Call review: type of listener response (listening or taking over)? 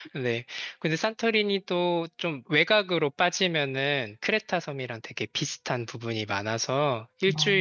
listening